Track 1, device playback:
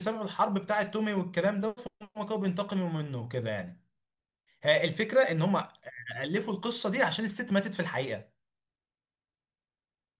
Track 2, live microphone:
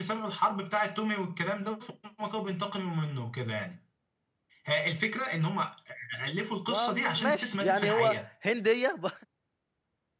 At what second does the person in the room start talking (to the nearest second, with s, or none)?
7 s